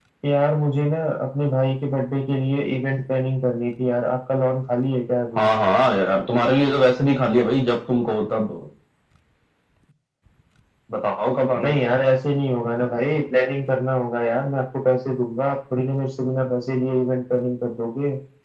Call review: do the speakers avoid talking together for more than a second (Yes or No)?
Yes